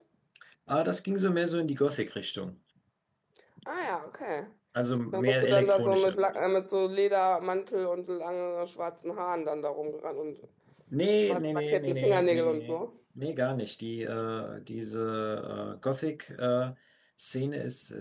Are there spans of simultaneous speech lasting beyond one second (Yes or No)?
Yes